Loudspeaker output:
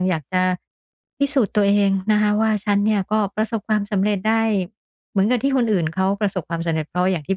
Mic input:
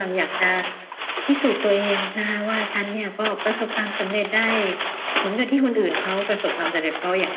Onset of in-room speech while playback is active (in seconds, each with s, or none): none